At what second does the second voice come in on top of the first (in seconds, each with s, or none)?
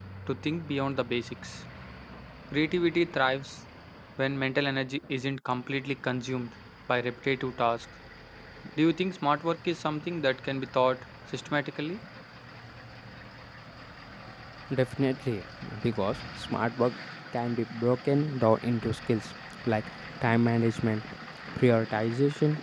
none